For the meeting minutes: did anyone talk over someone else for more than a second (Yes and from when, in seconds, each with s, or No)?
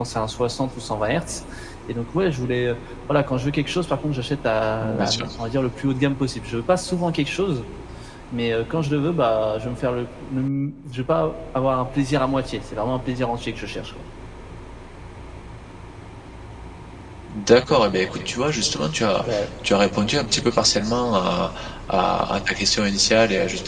No